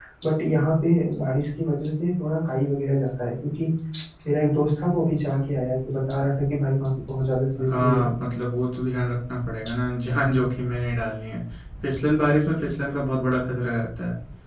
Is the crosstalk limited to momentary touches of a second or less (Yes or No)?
Yes